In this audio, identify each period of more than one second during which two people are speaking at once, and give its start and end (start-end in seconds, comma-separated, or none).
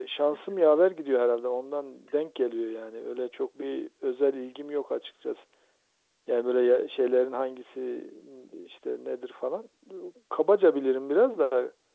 none